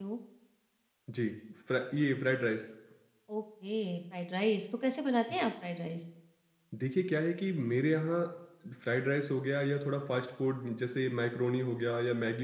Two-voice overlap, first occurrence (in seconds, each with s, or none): none